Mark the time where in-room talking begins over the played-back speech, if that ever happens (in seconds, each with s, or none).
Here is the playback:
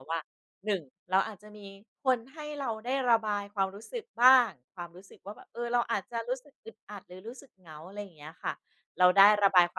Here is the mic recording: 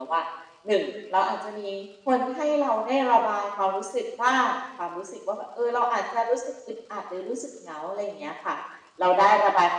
none